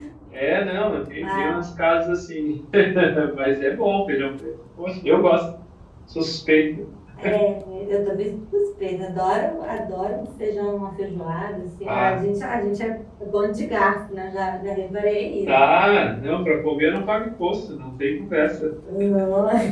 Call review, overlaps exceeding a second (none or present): none